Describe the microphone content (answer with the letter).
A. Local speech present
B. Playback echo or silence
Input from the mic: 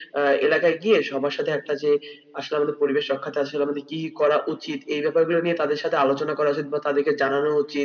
B